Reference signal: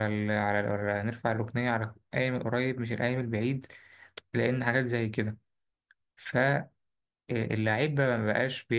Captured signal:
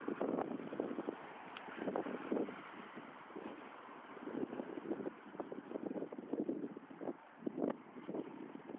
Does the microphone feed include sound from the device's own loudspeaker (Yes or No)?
No